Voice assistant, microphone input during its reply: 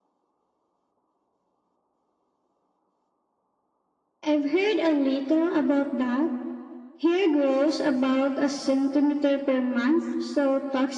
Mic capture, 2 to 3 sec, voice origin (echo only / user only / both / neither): neither